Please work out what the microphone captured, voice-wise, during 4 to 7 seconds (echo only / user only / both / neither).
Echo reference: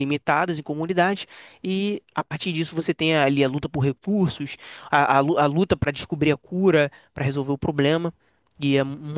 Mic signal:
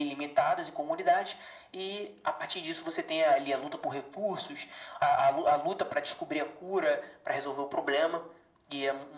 echo only